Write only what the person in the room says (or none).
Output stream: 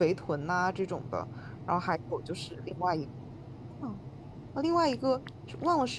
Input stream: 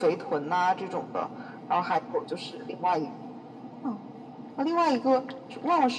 none